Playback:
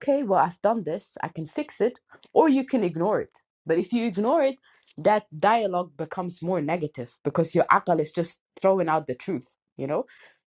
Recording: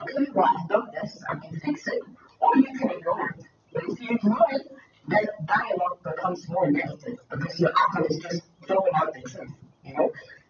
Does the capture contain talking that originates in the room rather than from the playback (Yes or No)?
No